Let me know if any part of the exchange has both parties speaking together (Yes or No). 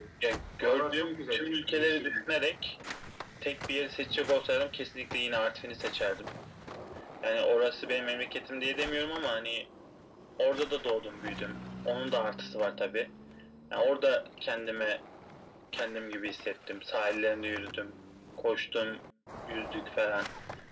Yes